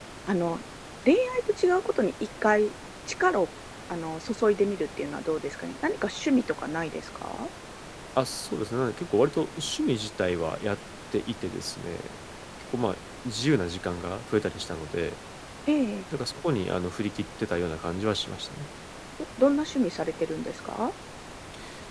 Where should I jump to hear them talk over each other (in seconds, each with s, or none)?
none